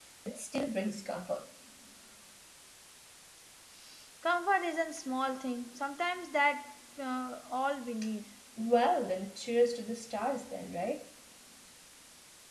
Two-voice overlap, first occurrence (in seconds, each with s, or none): none